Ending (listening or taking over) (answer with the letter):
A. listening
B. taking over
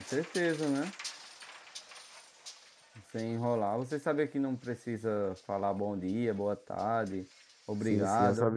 B